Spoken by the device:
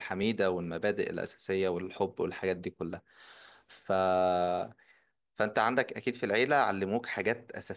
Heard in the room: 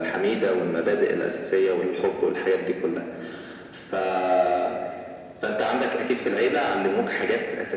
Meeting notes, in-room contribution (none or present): none